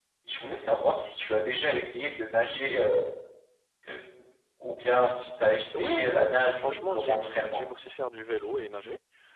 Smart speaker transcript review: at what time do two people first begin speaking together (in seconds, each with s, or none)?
5.7 s